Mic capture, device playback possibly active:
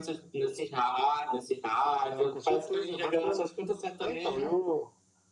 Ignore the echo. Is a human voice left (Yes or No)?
No